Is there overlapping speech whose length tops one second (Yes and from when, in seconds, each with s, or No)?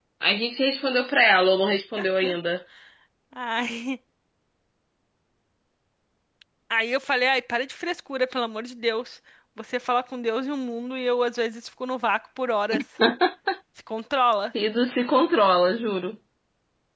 No